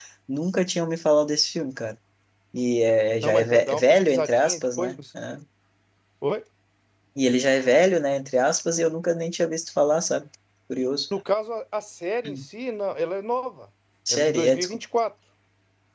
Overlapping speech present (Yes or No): Yes